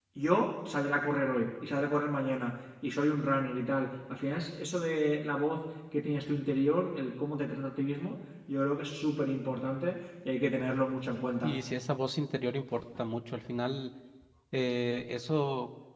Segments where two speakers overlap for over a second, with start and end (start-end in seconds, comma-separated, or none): none